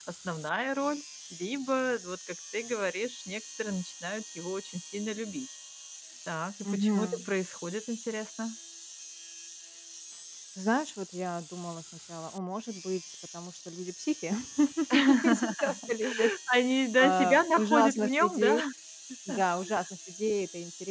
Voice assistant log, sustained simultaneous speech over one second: present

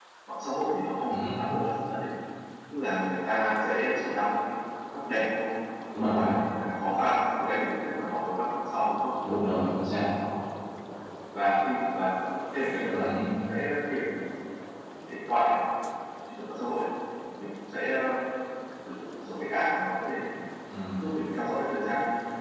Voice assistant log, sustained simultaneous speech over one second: none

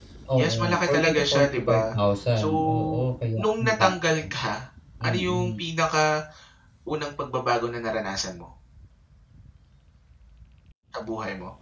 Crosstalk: present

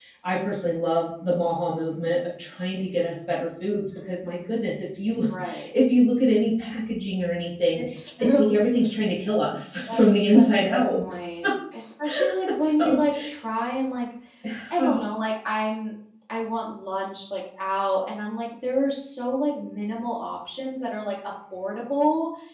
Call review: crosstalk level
present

